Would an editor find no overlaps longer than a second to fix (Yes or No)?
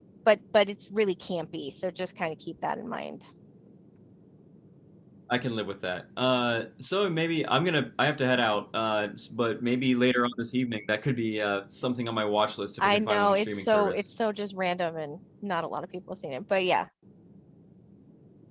No